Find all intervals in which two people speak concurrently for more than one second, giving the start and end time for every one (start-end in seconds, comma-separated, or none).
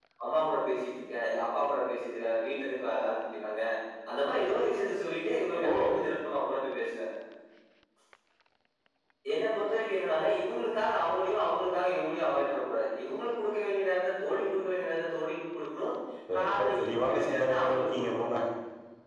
16.4-18.3